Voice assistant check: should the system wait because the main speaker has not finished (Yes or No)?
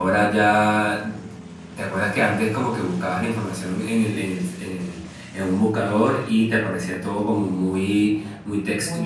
No